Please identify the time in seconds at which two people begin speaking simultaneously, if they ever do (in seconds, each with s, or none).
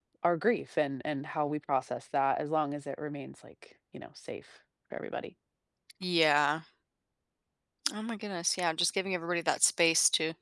none